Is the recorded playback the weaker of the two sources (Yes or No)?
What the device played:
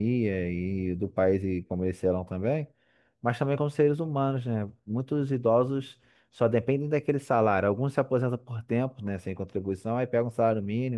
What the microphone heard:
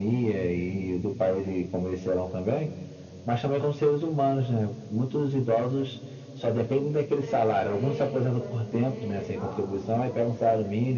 No